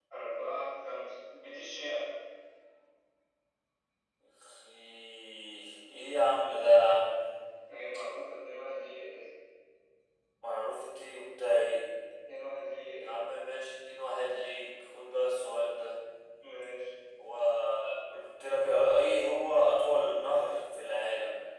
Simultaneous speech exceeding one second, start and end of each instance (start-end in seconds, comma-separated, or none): none